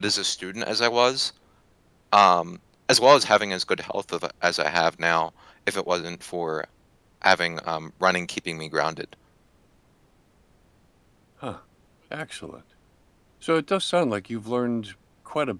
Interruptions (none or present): none